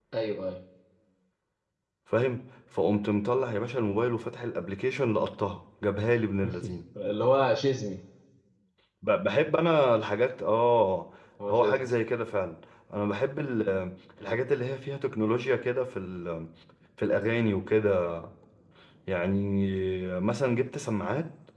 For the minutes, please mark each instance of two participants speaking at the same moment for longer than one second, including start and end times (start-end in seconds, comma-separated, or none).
none